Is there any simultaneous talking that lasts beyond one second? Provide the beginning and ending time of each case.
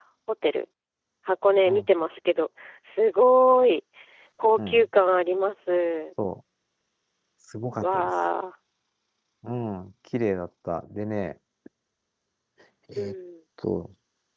none

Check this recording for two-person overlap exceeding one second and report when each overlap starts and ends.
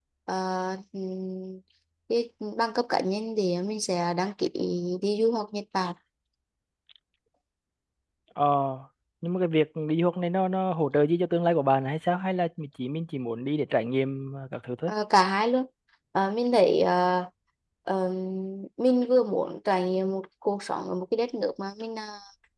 none

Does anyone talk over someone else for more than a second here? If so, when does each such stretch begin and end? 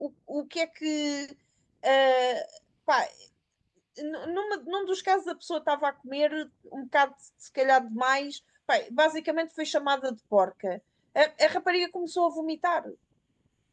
none

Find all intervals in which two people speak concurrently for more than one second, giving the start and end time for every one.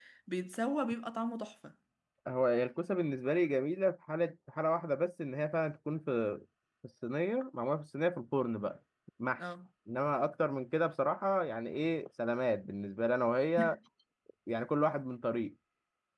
none

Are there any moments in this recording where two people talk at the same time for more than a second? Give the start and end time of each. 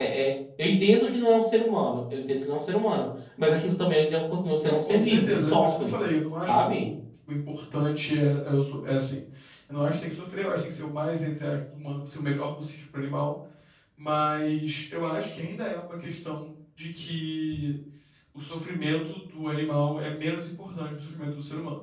4.6-6.0

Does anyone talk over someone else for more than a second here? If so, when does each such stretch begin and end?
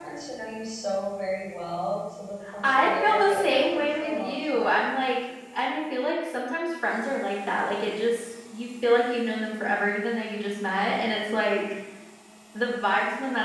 2.6-4.7

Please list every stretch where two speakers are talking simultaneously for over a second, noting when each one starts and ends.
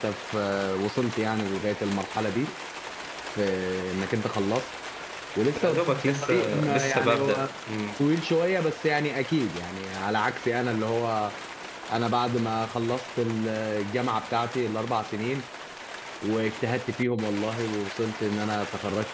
5.6-7.5

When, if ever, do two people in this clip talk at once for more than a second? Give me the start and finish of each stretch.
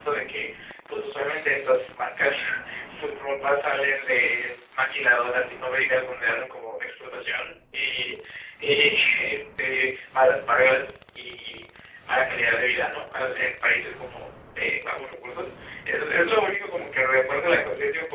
none

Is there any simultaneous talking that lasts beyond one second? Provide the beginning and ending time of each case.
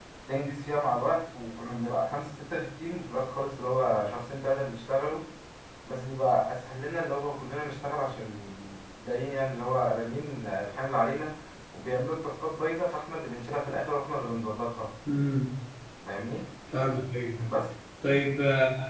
none

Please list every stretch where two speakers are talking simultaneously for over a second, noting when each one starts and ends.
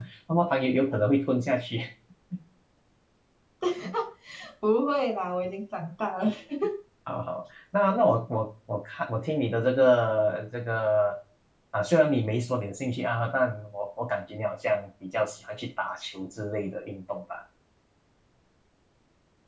none

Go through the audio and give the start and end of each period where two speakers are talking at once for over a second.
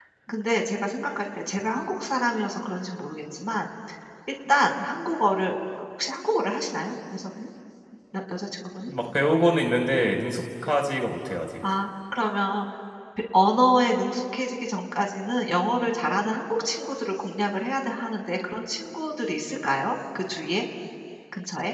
none

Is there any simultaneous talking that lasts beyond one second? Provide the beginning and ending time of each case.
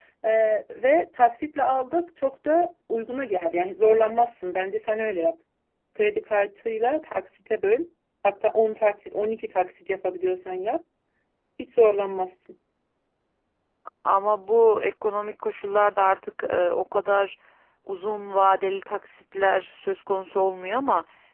none

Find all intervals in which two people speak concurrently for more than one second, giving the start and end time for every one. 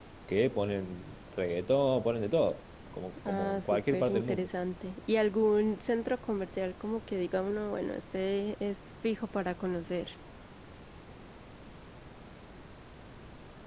3.2-4.5

